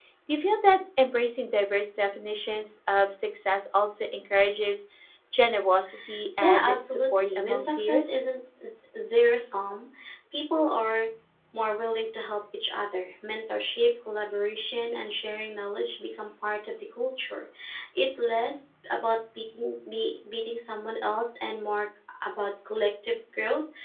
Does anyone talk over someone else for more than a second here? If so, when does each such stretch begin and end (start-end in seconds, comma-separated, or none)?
6.4-8.2